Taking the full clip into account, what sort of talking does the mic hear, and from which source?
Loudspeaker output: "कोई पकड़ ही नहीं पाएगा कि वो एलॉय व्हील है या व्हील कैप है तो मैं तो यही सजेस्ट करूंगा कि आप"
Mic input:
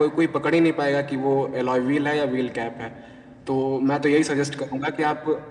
echo only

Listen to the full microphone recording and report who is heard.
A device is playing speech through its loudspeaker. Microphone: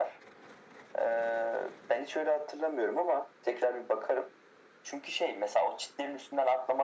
echo only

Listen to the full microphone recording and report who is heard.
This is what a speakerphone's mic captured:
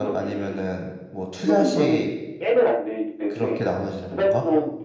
both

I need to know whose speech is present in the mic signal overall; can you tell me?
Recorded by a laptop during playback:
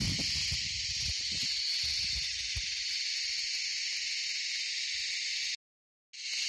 neither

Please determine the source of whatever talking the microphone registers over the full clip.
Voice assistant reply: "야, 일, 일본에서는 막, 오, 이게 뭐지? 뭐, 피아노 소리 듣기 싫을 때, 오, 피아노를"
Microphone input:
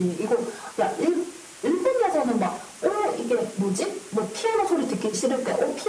echo only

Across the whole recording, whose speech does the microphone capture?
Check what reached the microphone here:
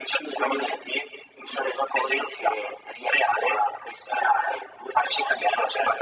echo only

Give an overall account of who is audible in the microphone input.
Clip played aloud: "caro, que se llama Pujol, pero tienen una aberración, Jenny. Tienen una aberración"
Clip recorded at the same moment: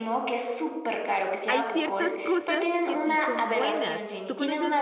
both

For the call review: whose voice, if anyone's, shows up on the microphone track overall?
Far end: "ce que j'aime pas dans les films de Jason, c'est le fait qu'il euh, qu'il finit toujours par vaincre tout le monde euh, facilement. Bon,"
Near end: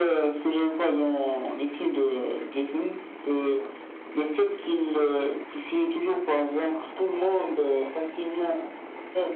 echo only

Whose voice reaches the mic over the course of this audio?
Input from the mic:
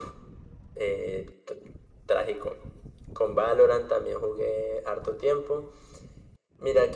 echo only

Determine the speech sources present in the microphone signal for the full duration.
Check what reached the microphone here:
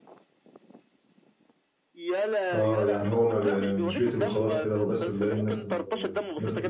both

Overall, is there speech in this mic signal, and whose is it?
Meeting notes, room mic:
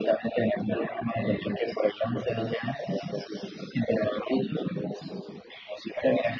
echo only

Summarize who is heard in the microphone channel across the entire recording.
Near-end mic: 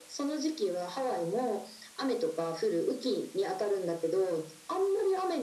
echo only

